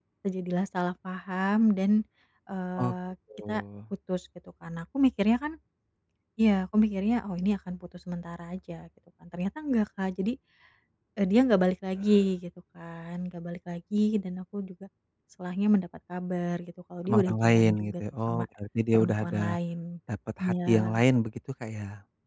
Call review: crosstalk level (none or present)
present